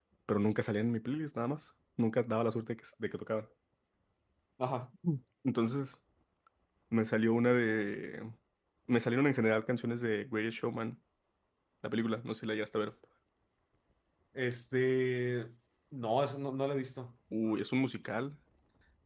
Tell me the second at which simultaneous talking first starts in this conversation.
none

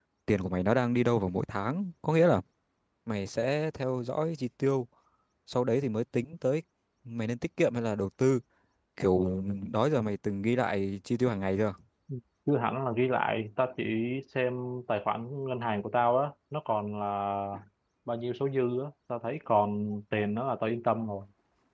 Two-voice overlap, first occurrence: none

